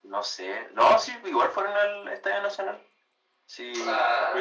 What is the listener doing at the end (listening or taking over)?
listening